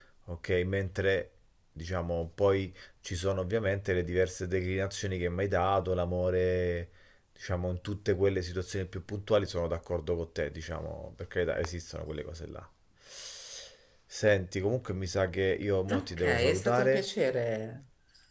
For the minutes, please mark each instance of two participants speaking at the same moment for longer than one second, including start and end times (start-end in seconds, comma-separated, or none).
15.9-17.1